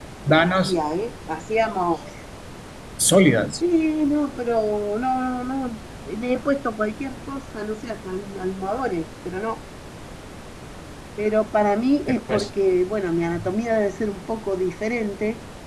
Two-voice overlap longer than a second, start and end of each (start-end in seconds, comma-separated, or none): none